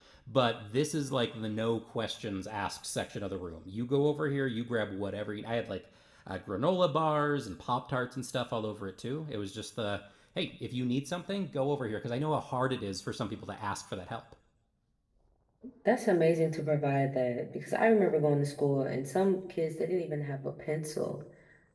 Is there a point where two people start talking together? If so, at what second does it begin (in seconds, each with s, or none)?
none